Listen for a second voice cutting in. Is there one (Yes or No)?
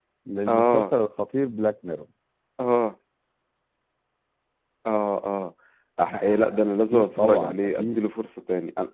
Yes